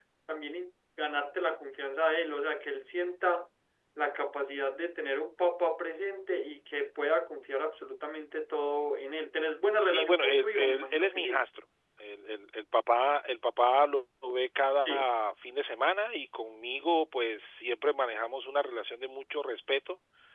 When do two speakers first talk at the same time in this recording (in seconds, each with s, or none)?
9.8 s